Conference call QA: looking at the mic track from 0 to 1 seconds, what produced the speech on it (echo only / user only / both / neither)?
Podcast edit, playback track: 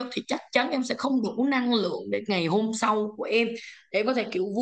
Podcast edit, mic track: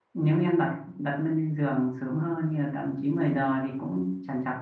user only